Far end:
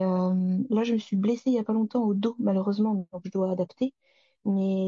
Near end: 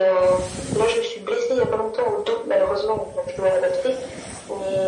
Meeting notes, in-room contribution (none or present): none